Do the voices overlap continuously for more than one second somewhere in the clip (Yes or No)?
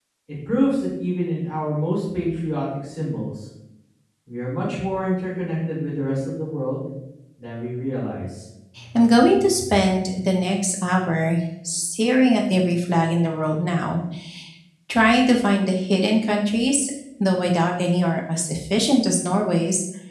No